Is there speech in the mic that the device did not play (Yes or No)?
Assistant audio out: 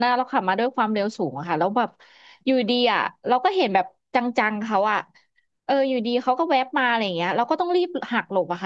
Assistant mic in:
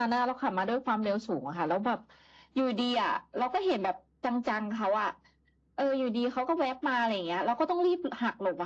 No